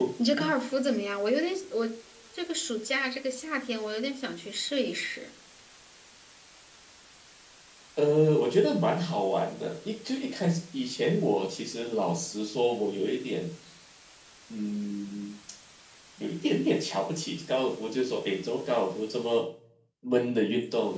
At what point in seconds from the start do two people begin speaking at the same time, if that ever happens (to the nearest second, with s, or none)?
none